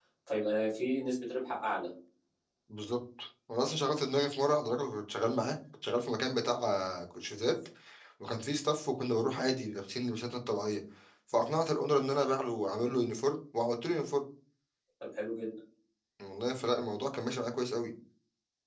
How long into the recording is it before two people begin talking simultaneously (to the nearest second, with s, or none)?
none